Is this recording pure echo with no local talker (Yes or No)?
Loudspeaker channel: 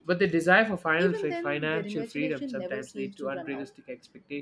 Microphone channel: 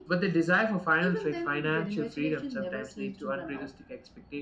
Yes